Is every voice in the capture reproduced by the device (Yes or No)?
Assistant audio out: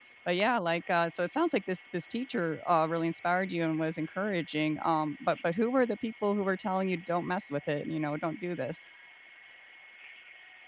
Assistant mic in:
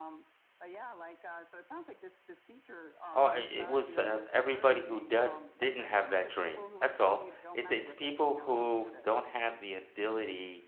No